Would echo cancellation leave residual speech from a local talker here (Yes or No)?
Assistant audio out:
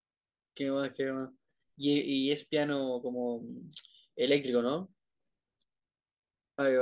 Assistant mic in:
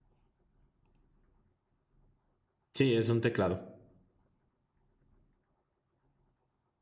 Yes